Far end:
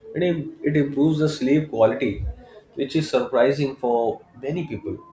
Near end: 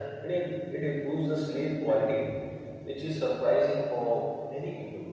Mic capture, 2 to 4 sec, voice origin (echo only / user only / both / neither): echo only